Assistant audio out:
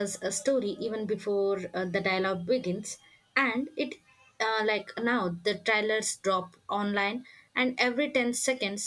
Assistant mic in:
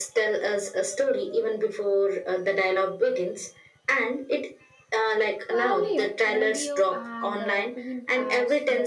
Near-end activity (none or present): present